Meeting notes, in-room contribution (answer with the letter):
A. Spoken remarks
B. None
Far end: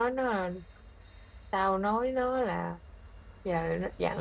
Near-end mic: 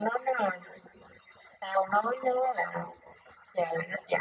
B